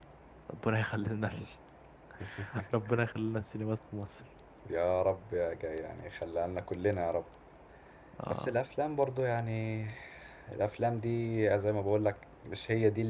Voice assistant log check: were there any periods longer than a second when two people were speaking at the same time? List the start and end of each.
none

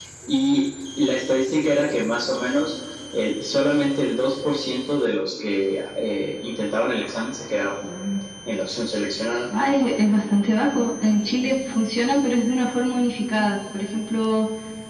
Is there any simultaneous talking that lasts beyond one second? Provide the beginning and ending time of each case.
none

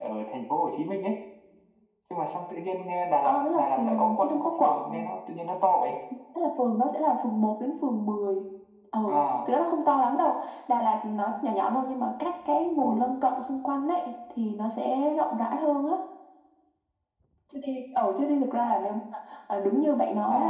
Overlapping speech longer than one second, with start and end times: 3.2-5.1

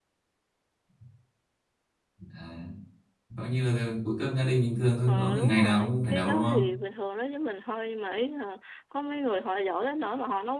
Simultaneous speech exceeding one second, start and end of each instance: 5.1-6.6

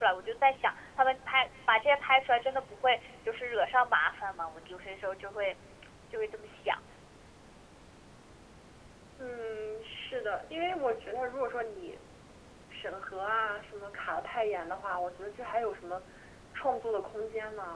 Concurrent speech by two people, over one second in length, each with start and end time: none

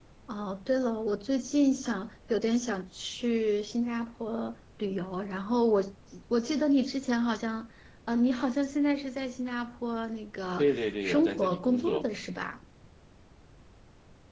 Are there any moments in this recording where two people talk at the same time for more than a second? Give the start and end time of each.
10.6-12.1

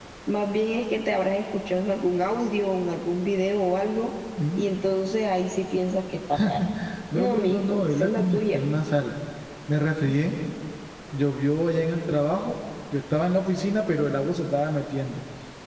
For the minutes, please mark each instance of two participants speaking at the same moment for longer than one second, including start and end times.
7.2-8.6

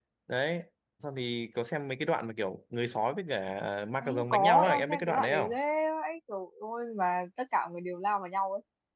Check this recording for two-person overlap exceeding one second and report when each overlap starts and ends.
4.0-5.5

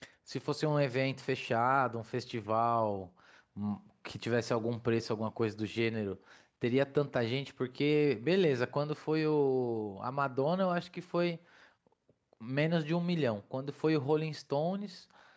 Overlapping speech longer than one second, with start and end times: none

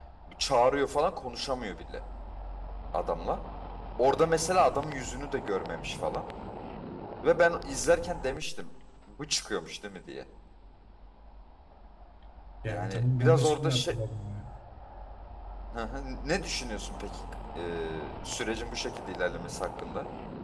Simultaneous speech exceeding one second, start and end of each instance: 12.7-13.9

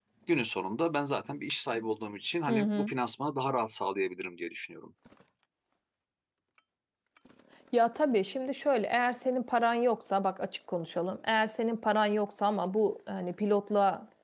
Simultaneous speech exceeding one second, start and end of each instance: none

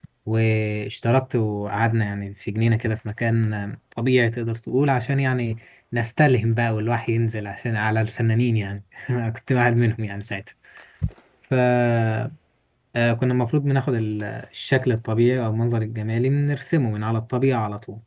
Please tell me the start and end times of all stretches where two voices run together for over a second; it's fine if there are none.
none

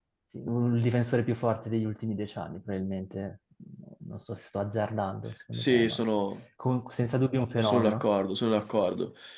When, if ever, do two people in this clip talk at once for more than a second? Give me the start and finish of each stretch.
none

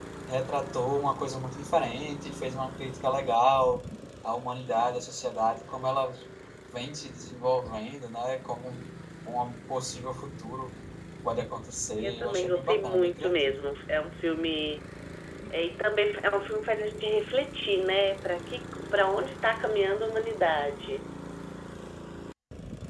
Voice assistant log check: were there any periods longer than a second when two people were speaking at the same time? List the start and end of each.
12.0-13.5

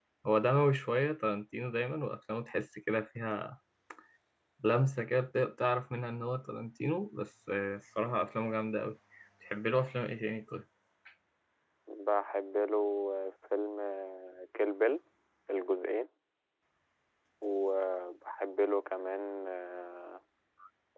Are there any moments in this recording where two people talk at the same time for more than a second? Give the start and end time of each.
none

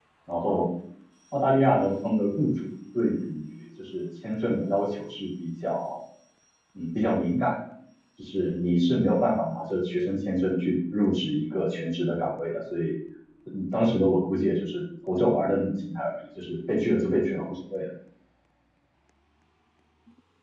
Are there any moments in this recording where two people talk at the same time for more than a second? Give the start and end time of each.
none

